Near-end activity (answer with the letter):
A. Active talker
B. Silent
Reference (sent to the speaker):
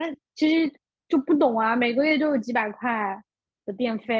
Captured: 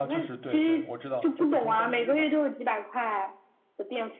A